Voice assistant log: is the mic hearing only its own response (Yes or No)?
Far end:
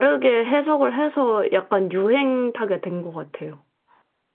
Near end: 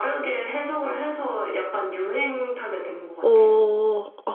No